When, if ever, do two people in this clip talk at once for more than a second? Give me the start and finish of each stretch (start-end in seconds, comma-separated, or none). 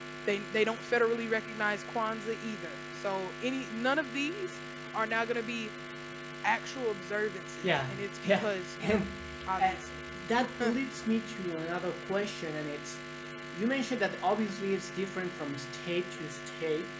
7.6-9.0